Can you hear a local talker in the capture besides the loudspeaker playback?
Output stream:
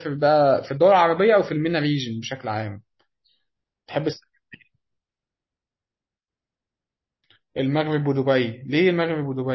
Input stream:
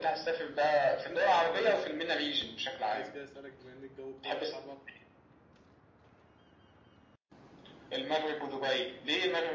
Yes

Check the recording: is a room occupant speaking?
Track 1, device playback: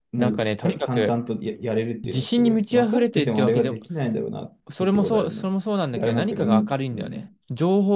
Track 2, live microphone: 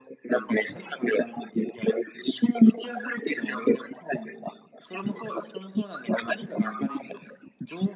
No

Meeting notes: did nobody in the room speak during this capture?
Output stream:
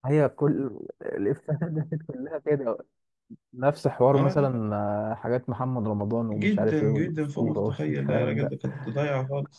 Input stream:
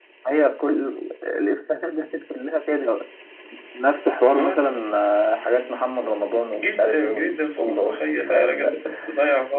Yes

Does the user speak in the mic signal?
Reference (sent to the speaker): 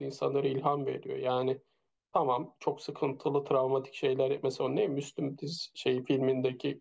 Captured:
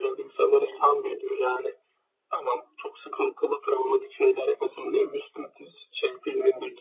No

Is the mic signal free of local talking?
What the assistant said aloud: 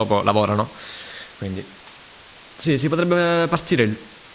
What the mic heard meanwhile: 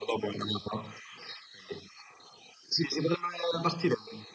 Yes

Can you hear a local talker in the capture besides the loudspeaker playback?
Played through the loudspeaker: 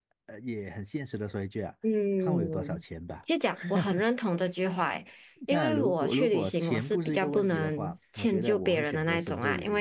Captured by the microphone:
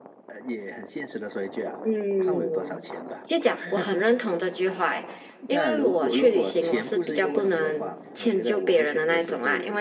No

